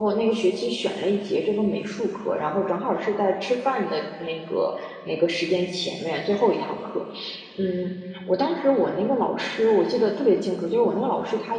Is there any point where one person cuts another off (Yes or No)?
No